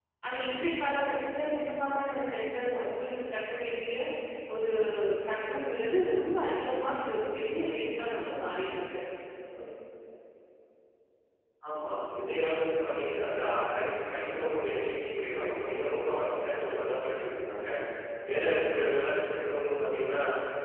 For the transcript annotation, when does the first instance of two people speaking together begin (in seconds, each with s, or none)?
none